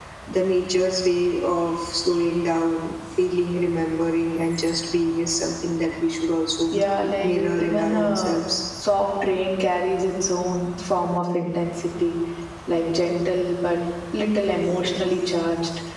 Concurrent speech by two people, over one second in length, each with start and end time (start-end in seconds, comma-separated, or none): 6.7-8.4